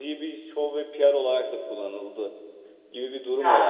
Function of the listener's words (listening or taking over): listening